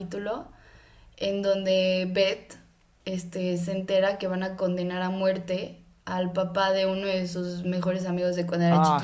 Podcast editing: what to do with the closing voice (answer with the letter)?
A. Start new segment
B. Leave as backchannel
A